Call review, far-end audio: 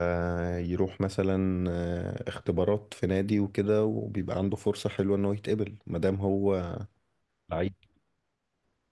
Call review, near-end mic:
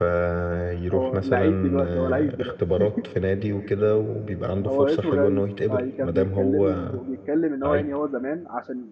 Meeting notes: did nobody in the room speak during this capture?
No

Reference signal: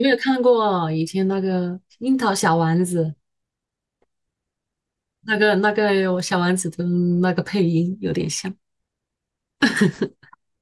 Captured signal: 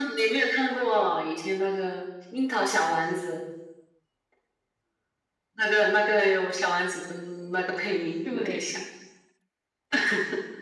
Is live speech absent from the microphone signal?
No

